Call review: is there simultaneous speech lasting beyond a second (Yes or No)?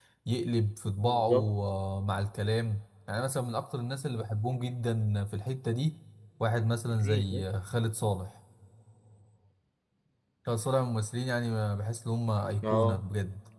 No